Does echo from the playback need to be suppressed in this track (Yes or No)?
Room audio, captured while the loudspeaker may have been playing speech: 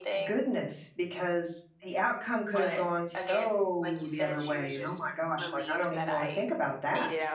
Yes